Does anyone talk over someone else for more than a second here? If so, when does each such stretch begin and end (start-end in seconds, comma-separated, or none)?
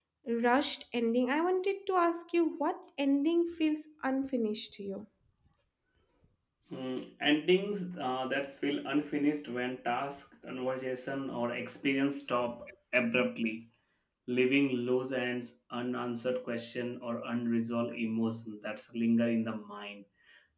none